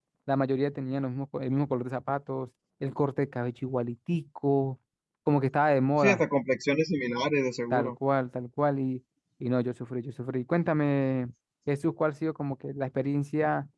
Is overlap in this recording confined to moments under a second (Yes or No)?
Yes